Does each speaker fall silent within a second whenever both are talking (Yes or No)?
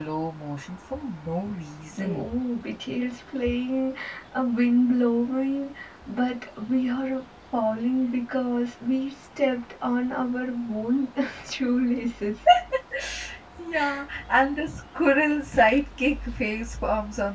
Yes